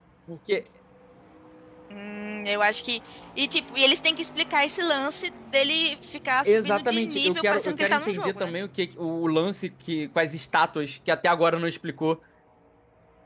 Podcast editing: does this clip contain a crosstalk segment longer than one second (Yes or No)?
Yes